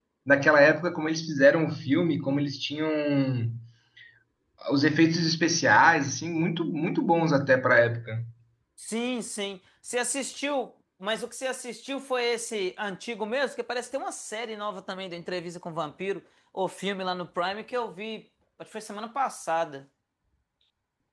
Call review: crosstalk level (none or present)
none